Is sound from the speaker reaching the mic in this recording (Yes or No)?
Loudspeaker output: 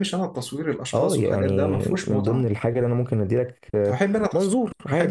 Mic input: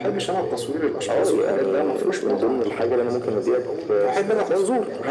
Yes